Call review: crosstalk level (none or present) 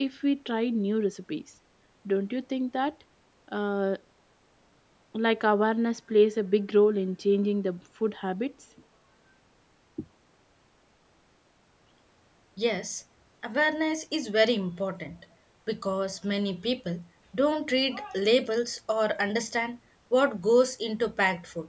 none